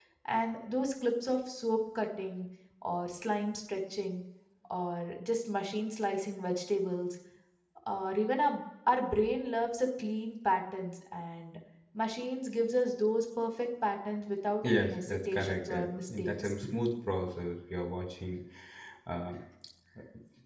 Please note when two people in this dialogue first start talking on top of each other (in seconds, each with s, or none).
14.6 s